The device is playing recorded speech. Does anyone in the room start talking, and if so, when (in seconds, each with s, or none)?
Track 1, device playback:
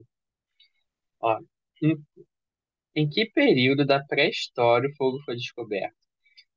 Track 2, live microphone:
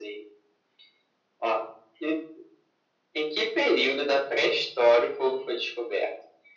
none